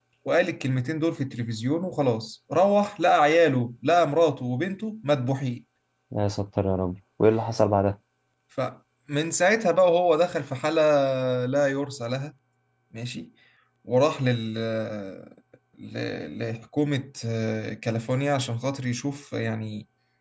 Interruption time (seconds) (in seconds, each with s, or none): none